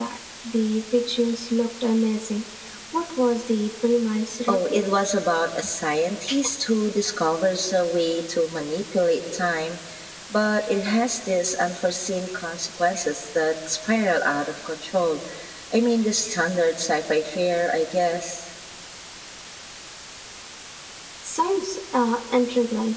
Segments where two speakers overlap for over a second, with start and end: none

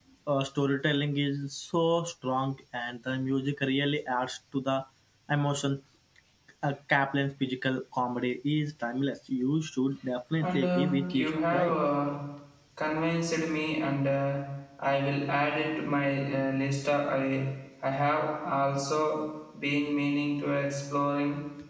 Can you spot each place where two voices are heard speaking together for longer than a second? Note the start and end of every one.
10.4-11.8

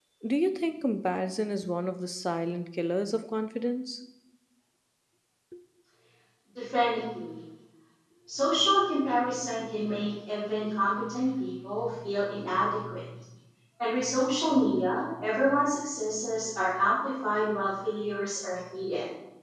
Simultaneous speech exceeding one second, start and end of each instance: none

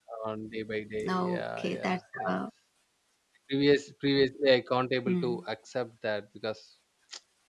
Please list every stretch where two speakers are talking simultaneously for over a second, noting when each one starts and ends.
1.0-2.4

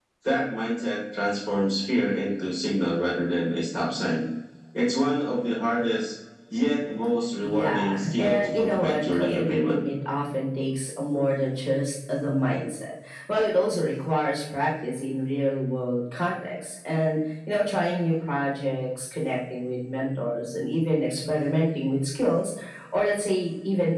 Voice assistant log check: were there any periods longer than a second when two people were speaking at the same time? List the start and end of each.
7.4-9.8

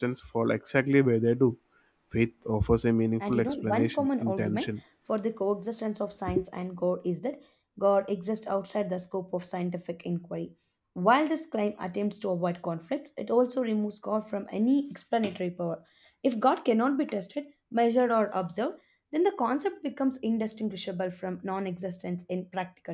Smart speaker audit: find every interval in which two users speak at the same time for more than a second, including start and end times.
3.2-4.7

